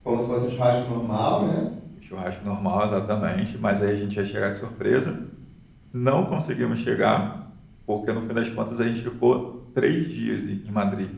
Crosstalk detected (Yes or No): No